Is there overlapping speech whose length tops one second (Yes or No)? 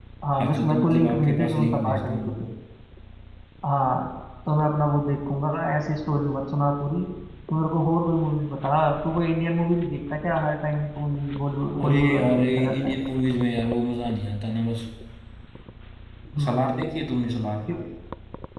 Yes